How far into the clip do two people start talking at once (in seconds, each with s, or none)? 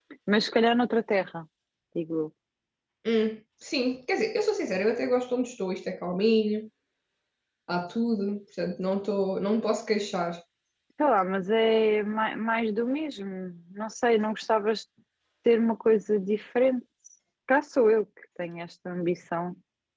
none